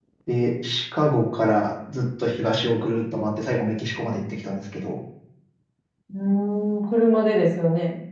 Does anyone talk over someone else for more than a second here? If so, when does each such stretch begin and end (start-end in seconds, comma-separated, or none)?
none